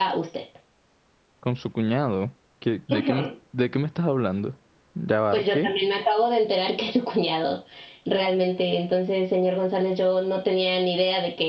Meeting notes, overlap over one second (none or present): none